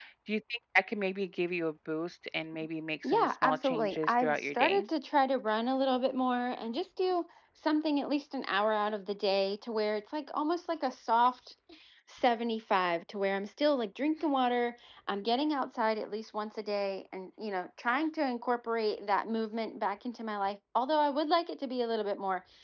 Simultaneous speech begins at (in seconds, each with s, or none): 3.0 s